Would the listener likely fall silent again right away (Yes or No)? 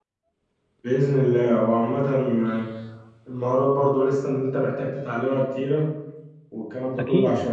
Yes